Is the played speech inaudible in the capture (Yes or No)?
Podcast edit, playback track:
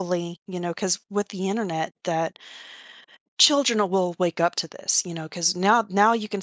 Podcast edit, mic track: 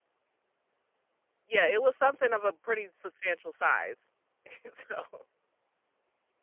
Yes